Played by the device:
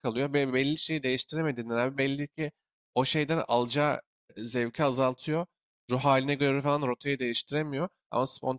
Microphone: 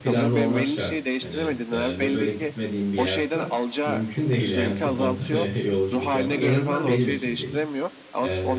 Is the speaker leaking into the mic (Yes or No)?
Yes